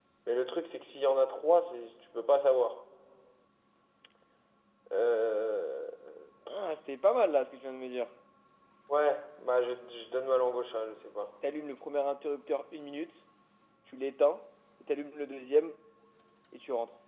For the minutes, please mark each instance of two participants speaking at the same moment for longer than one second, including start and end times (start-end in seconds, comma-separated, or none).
none